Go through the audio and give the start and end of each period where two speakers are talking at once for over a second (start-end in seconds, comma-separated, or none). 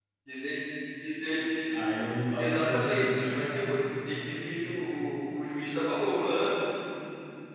2.4-3.8